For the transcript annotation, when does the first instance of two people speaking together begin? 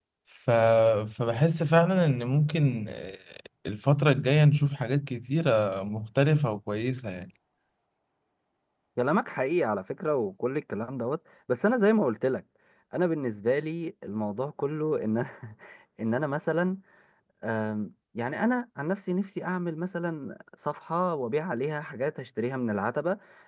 none

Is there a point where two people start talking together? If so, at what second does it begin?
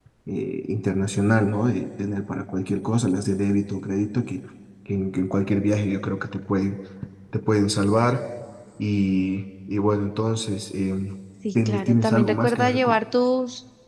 12 s

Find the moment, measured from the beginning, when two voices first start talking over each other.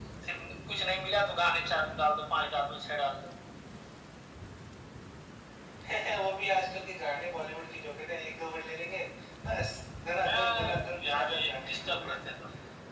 10 s

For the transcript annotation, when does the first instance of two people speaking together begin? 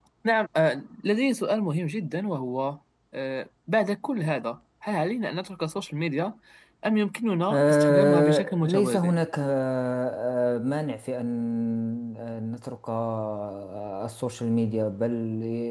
8 s

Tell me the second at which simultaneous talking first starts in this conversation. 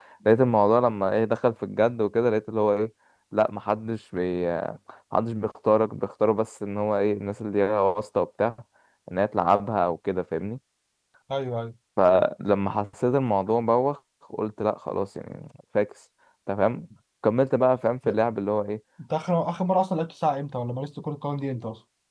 none

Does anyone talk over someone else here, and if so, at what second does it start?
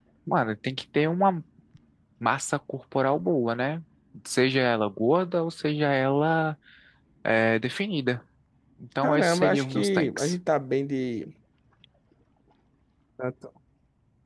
9 s

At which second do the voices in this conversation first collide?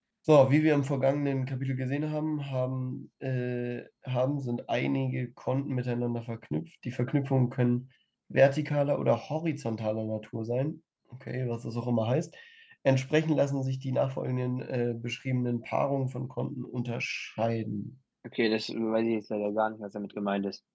none

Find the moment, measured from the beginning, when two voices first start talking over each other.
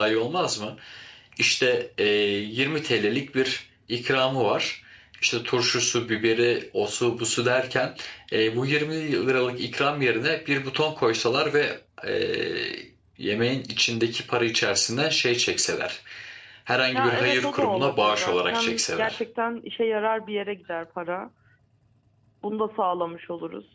17 s

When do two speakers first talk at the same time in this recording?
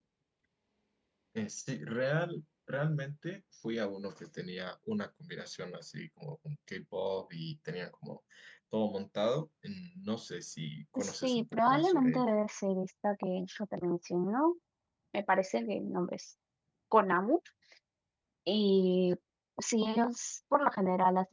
11 s

